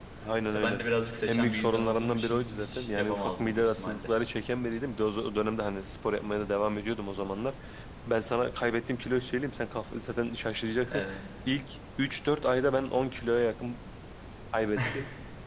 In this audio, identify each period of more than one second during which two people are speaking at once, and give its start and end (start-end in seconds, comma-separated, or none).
1.2-4.1